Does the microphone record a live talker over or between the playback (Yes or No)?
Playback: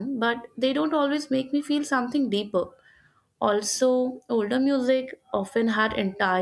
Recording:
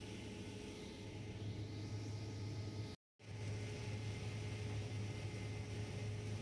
No